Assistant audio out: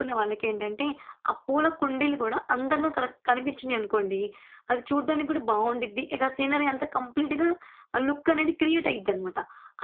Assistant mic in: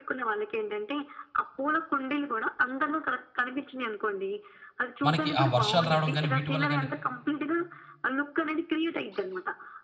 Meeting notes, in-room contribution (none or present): present